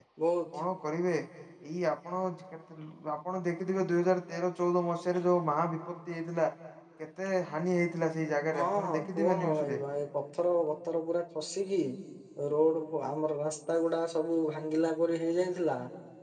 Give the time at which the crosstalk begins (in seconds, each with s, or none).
8.5 s